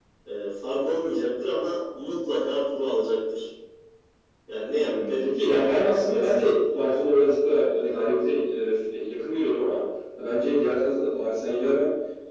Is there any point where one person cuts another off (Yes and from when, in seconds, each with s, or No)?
Yes, from 4.8 s